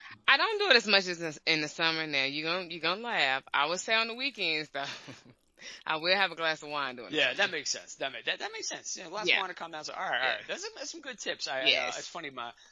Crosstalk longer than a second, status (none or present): none